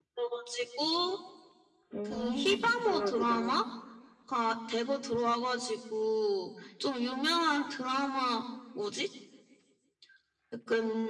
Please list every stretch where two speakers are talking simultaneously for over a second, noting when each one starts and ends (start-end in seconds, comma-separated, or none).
2.0-3.5